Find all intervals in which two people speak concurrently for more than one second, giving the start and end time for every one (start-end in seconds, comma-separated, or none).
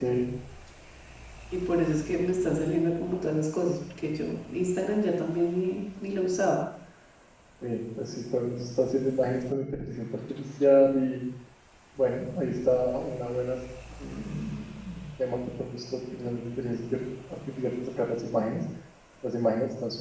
none